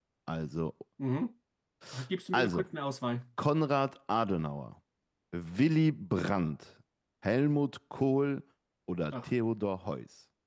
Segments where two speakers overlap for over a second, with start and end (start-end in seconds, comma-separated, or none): none